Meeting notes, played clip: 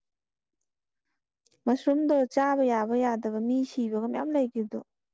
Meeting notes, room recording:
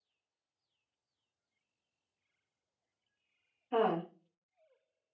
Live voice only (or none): ꯍꯥ